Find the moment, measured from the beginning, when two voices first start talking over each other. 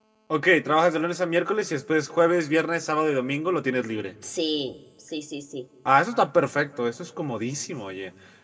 none

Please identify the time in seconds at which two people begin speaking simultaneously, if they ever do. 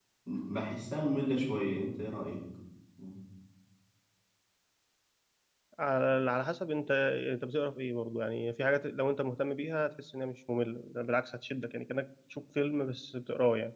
none

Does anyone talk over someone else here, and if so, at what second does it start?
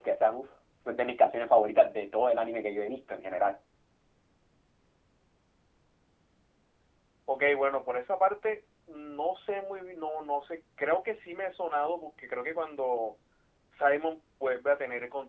none

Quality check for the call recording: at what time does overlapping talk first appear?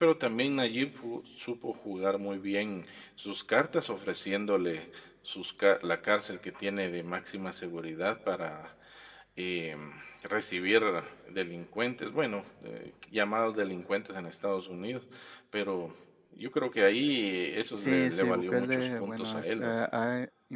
18 s

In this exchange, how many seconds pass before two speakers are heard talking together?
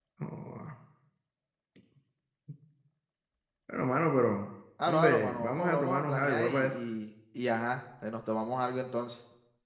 5 s

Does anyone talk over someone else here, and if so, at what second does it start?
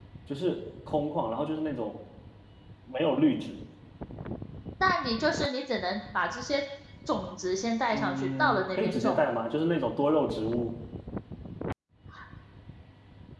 8 s

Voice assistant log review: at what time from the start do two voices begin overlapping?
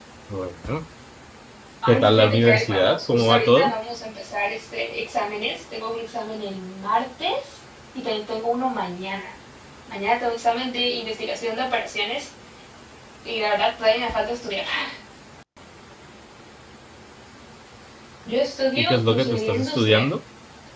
2 s

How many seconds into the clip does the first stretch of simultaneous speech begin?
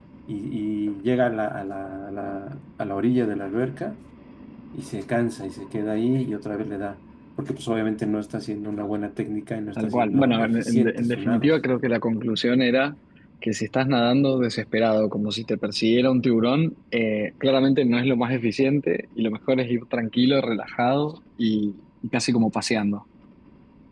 10 s

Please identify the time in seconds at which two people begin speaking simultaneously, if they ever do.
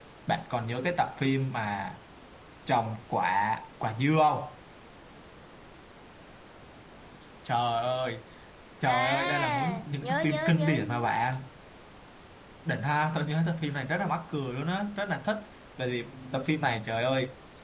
9 s

